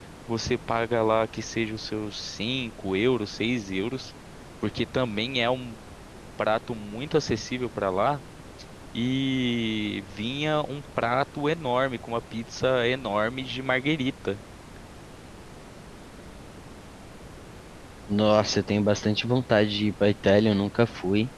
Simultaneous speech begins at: none

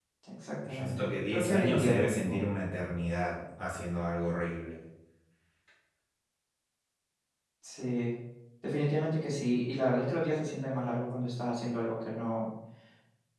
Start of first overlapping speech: 0.6 s

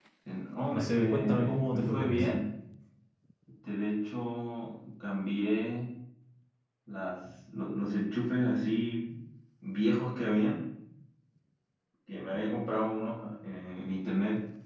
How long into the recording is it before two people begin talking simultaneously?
0.7 s

